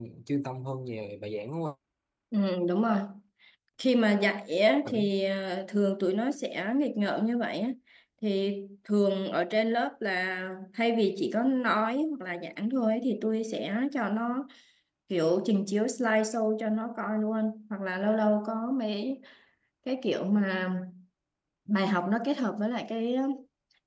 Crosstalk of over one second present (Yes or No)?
No